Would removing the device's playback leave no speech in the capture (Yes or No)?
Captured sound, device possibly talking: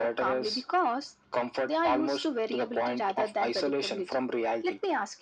Yes